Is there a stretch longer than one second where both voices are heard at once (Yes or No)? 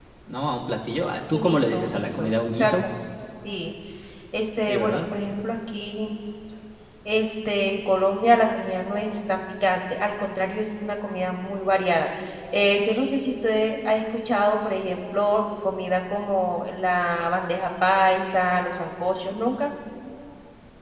Yes